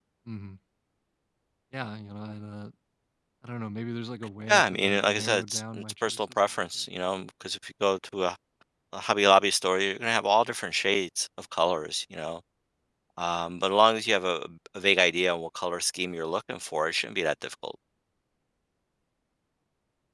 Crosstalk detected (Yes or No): Yes